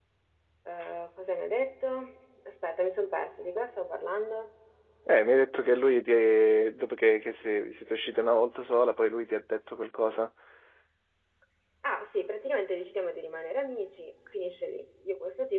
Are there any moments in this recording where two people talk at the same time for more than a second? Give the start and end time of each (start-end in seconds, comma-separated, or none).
none